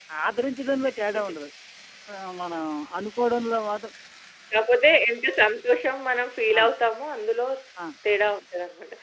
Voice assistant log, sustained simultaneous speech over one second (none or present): none